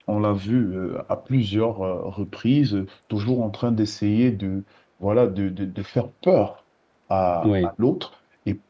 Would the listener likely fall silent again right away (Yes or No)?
Yes